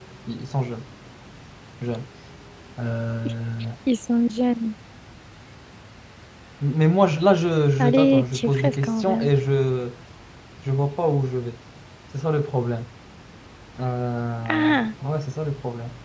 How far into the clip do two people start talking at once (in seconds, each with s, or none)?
7.8 s